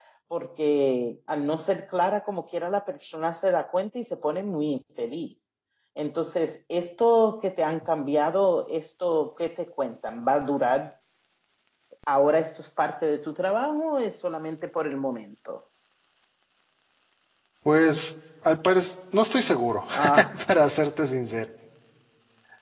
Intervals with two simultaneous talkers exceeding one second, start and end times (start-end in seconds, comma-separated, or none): none